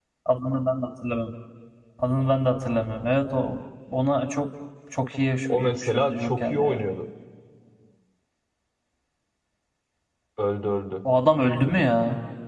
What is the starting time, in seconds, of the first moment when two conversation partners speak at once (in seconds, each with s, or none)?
5.5 s